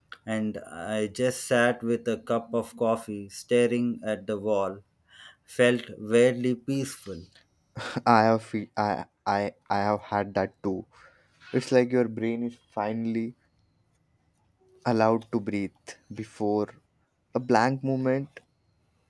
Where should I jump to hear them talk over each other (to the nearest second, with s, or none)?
none